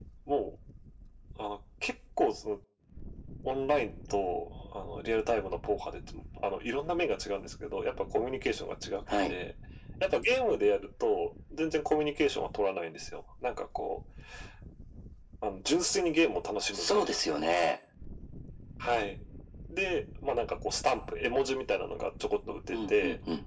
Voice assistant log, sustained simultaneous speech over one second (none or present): none